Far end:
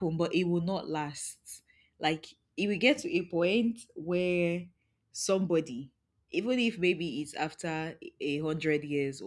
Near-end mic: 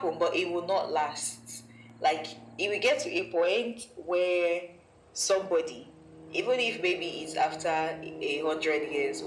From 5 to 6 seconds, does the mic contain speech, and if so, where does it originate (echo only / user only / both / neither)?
echo only